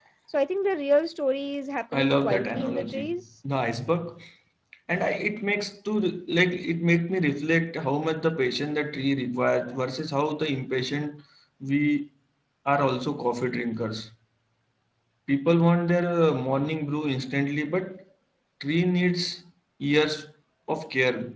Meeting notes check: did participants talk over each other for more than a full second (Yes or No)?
Yes